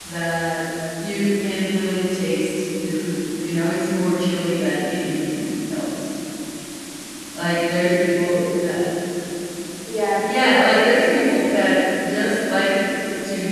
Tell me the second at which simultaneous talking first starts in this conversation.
10 s

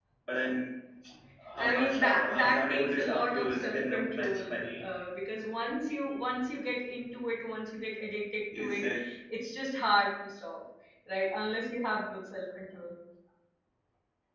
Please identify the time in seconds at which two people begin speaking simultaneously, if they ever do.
2 s

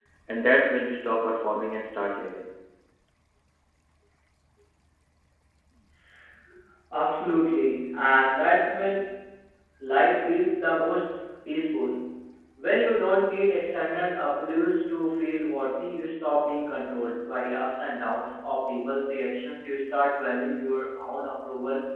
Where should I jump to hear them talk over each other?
none

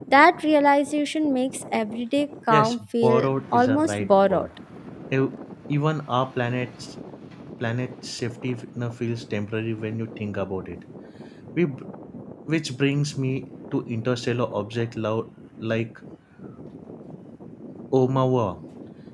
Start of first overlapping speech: 3 s

